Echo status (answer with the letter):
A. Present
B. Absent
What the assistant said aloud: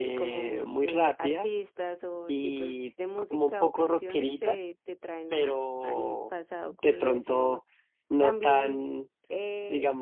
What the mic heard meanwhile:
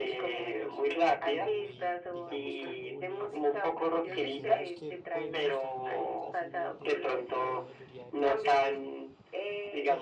A